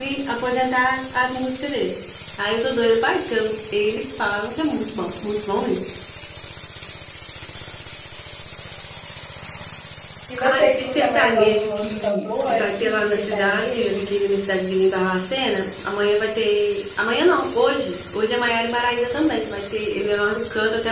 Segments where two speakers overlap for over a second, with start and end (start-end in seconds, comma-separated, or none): 10.5-14.1